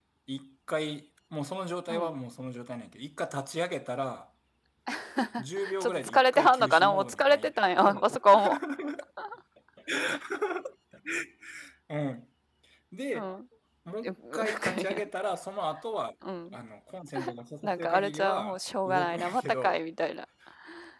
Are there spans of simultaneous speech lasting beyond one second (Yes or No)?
Yes